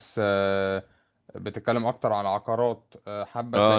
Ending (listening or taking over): taking over